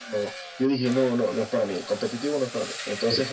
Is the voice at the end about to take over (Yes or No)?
No